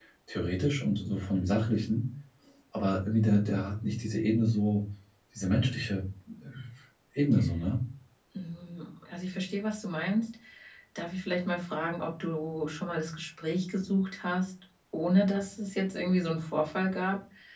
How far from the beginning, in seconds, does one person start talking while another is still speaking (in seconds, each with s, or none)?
none